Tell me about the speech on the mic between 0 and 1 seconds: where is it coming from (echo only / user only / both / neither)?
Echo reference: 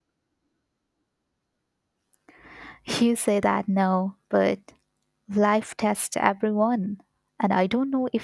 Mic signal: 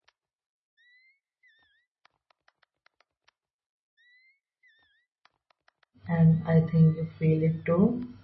neither